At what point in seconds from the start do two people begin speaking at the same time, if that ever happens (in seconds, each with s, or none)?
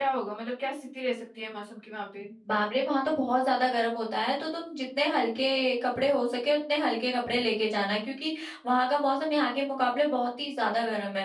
none